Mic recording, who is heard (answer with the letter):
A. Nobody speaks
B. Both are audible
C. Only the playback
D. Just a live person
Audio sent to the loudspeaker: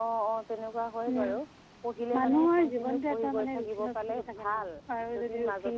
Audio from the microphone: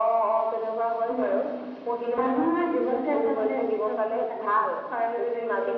C